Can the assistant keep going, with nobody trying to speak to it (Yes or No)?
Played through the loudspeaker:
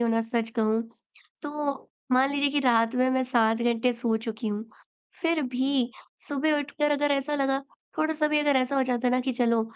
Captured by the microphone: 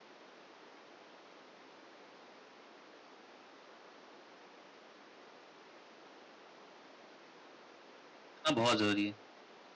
No